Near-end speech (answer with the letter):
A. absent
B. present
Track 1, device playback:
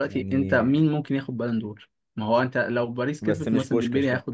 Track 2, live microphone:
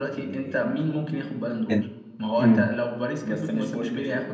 B